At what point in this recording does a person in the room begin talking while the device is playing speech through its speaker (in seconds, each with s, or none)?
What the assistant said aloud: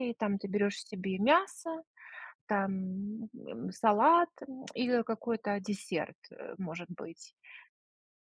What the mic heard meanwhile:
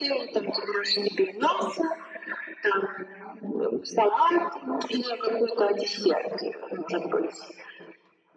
none